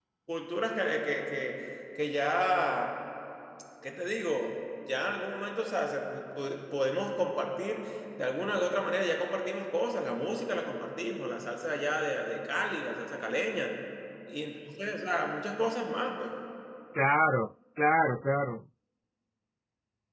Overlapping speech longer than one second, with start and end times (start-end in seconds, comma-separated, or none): none